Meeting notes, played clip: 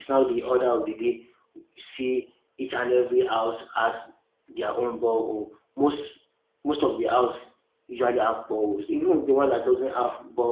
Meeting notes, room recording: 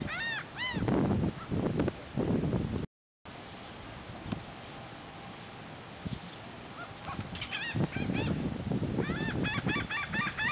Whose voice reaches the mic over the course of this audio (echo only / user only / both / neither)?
neither